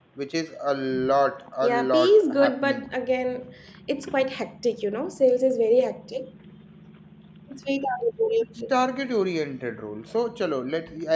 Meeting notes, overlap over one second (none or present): present